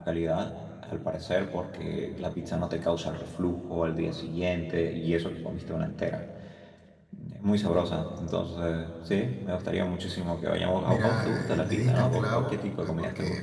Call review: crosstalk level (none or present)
present